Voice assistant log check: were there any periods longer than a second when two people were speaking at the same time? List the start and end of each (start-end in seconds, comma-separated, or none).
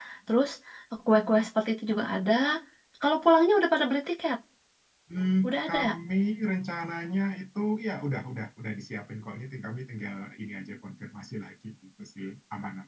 none